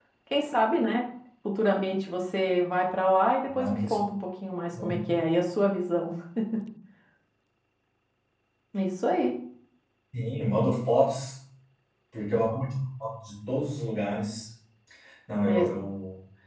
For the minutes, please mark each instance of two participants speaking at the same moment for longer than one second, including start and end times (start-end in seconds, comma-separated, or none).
none